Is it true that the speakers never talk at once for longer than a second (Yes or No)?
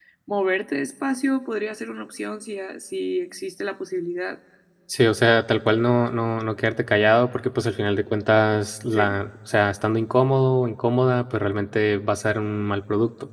Yes